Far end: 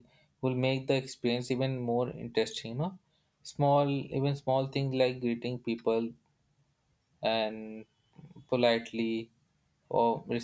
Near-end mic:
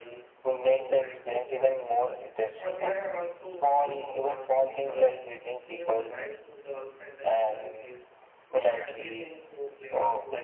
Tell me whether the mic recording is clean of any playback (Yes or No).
No